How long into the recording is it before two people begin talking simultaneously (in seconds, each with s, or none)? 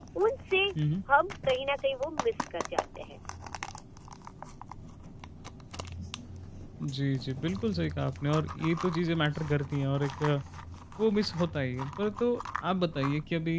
none